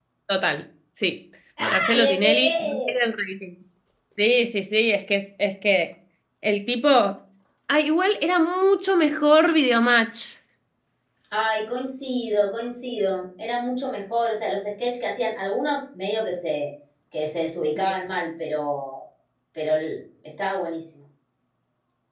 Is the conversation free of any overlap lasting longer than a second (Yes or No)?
No